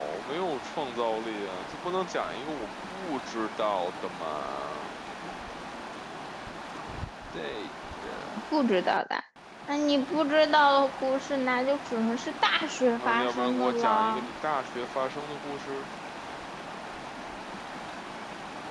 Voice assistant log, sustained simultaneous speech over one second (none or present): present